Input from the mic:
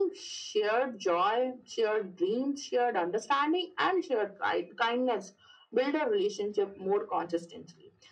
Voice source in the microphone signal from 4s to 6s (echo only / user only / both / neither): echo only